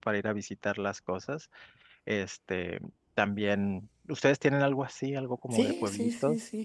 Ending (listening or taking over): taking over